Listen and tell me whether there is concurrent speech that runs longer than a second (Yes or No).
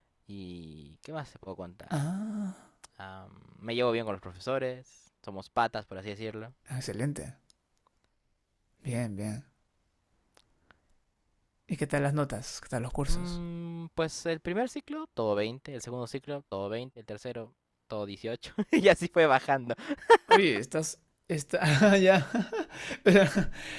No